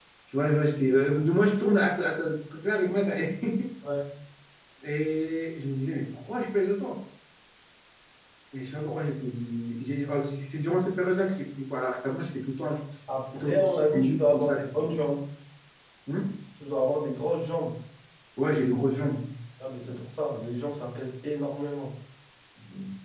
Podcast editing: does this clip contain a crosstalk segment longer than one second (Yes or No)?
Yes